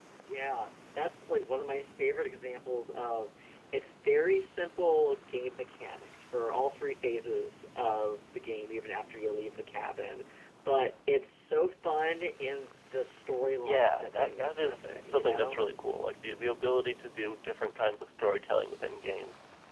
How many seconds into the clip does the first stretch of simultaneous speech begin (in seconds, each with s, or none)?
13.6 s